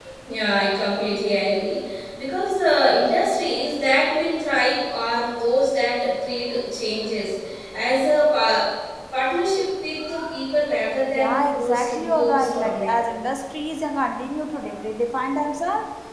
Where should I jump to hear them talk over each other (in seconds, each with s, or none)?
11.1 s